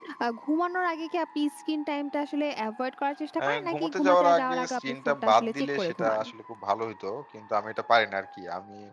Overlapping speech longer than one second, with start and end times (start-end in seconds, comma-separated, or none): 3.4-6.2